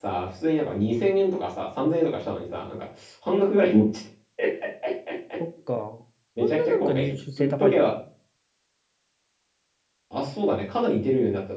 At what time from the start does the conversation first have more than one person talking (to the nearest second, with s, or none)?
6 s